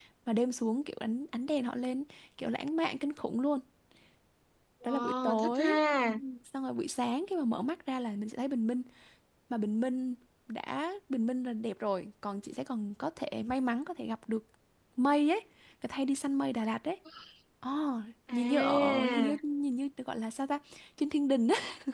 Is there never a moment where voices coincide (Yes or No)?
No